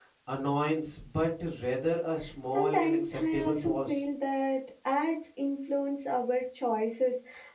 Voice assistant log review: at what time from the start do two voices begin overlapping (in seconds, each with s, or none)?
2.5 s